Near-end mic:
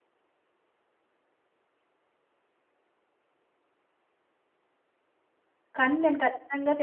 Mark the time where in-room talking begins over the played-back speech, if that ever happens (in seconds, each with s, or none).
5.8 s